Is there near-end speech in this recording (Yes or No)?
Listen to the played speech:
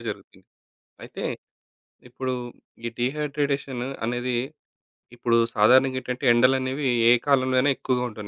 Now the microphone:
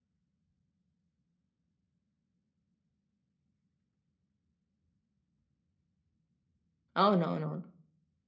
Yes